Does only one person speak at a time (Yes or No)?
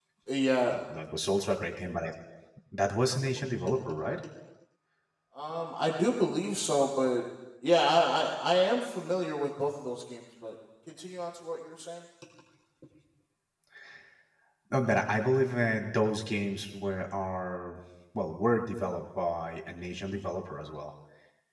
Yes